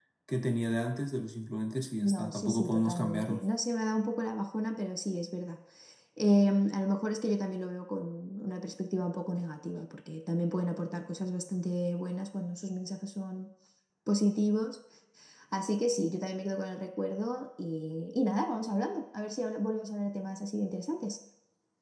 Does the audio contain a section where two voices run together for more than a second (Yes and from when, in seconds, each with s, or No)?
Yes, from 2.0 s